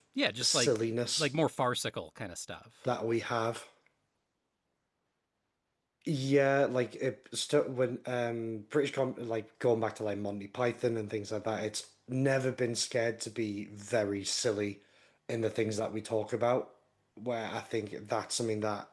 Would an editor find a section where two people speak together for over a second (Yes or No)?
No